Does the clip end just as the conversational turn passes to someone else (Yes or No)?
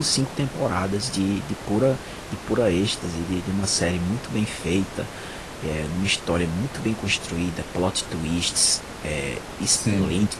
No